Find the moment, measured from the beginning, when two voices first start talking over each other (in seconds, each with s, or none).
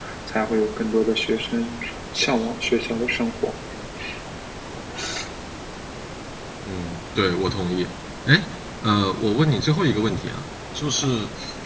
none